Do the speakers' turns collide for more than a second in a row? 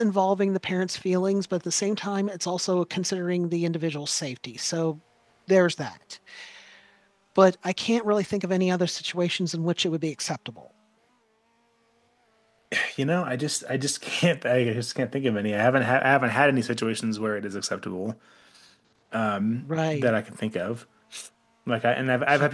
No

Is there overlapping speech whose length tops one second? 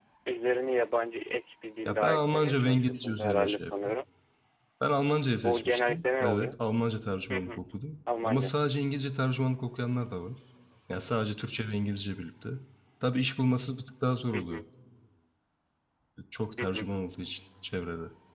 Yes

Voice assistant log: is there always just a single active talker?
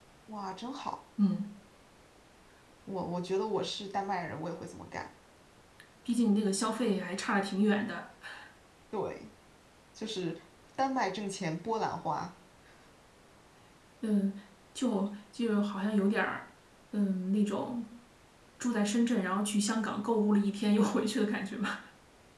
Yes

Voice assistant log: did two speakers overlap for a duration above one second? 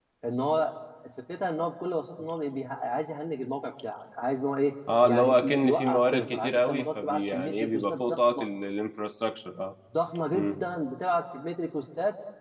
Yes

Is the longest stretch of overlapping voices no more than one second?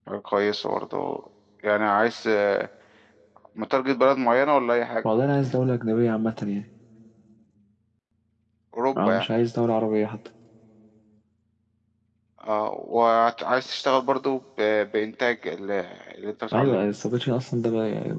Yes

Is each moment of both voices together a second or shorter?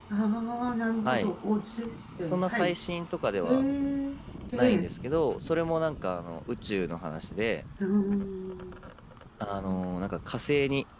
Yes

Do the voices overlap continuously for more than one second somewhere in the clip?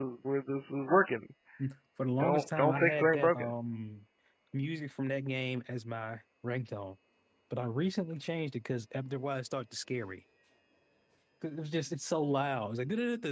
Yes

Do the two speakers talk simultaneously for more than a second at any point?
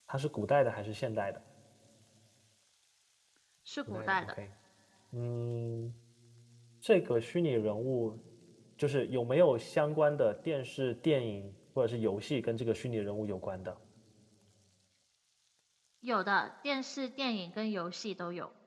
No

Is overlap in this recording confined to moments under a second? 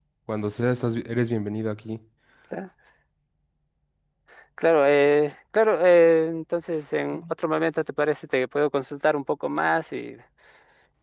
Yes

